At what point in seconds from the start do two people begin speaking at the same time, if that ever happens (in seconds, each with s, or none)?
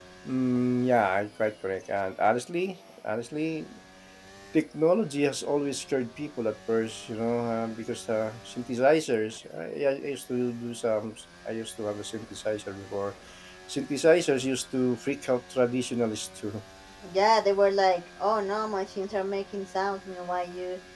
none